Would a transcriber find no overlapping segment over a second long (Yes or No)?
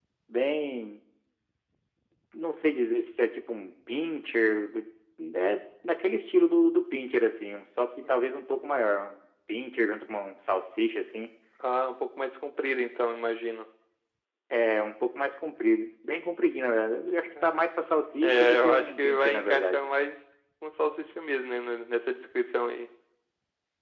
No